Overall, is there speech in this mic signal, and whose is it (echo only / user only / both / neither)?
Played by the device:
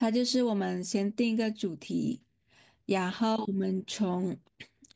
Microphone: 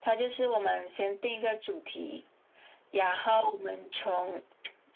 echo only